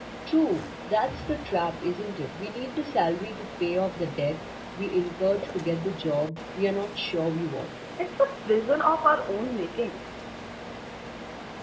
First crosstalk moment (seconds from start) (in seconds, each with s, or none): none